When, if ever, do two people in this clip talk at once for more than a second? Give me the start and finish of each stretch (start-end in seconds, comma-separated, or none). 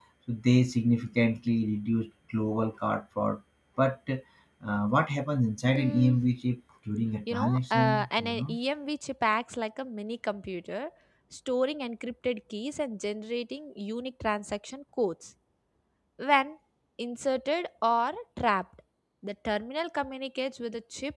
7.3-8.6